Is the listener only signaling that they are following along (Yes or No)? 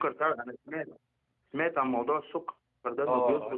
No